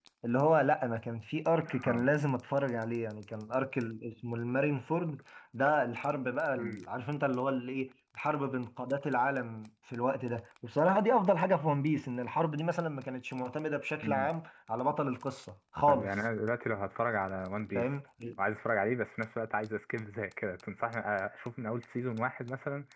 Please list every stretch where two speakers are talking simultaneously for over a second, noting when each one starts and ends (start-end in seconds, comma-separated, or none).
none